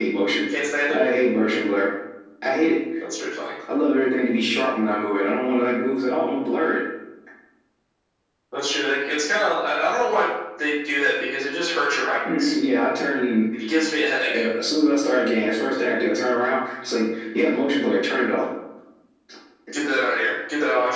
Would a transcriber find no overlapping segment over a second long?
Yes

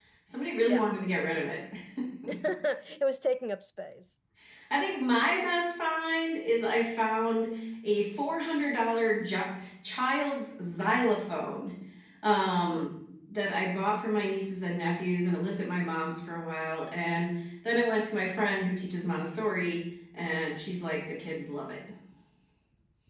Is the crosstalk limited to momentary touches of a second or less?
Yes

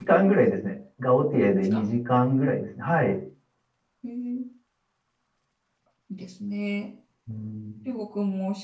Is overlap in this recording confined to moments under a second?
Yes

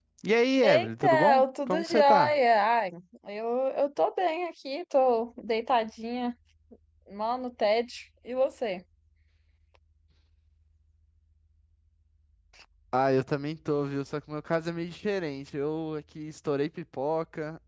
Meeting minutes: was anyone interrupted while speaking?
Yes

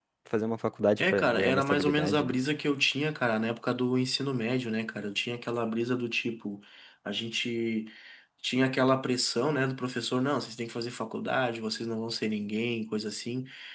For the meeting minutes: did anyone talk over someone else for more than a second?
Yes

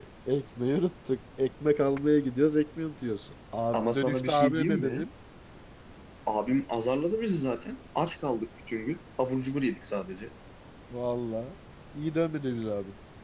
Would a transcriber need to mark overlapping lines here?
Yes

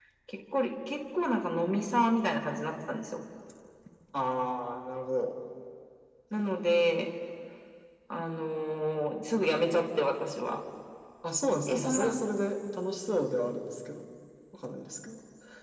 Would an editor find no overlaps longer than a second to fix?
Yes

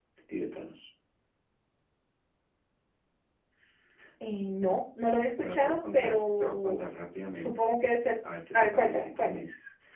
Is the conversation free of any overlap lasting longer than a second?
No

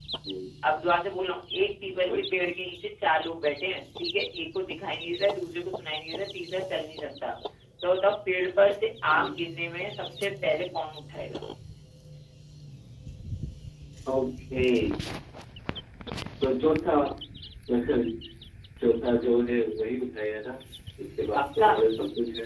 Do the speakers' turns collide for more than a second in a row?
No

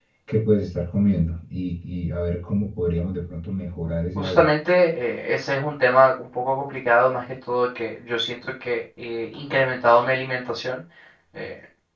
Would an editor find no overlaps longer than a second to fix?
Yes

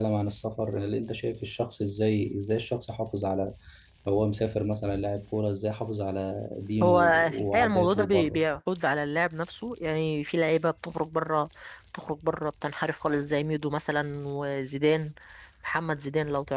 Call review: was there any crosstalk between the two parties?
Yes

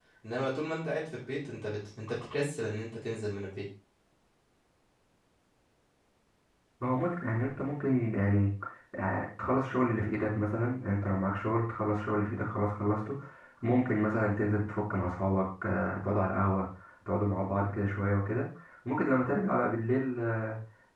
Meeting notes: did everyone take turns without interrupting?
Yes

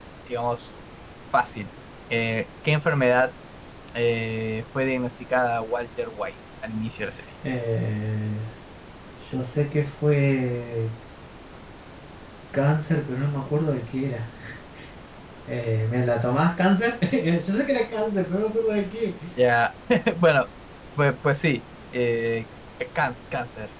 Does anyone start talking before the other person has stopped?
No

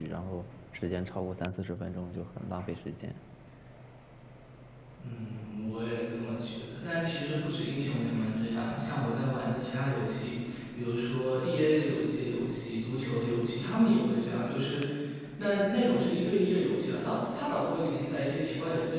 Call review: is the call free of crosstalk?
Yes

